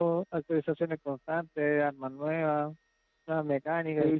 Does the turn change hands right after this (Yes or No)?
Yes